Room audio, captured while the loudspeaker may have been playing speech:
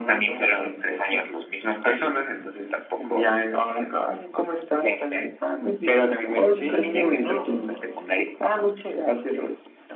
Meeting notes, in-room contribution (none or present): present